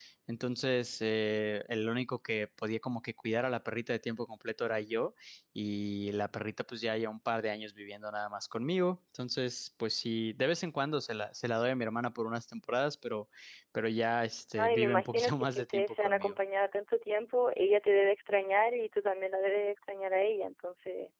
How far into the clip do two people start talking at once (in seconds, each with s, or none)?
14.6 s